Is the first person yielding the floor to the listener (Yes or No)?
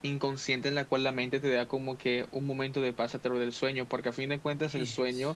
No